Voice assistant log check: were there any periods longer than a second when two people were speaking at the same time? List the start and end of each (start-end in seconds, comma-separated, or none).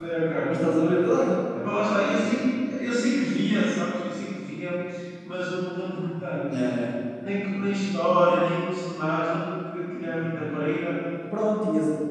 none